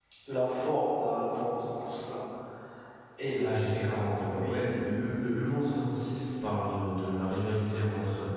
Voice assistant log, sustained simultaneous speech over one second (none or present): none